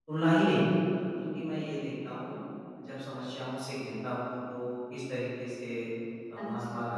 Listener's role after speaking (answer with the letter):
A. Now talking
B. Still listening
B